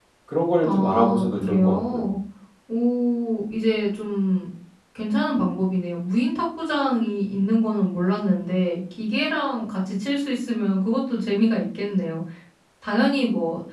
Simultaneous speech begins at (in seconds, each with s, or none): 0.6 s